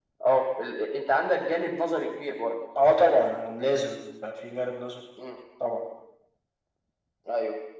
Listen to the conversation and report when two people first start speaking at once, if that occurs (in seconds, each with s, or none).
none